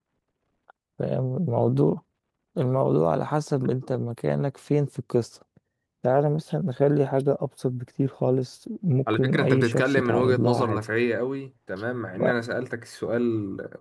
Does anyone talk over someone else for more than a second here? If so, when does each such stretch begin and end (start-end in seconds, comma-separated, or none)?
9.1-10.8